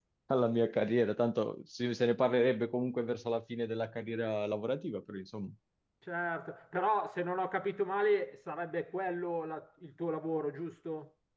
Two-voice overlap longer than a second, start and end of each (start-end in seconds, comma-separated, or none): none